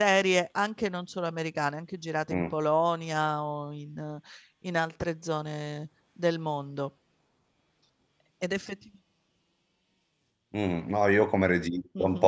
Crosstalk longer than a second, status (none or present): none